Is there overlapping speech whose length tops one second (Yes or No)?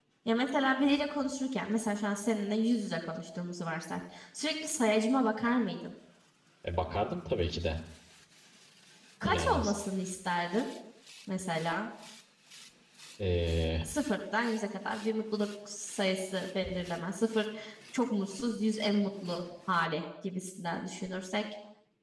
No